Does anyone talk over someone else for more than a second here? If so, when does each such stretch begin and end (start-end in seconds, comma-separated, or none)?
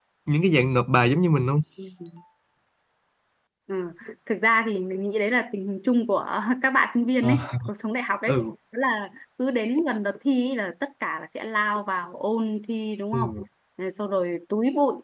none